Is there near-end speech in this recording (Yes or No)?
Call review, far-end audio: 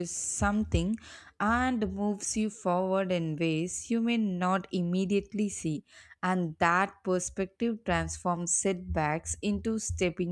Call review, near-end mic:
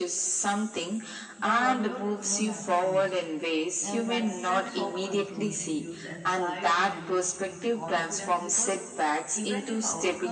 Yes